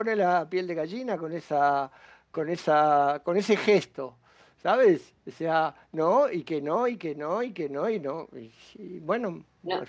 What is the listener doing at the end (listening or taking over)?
taking over